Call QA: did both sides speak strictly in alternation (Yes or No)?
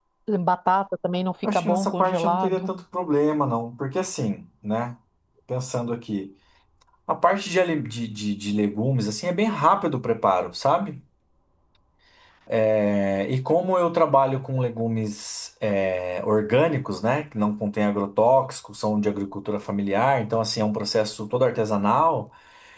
No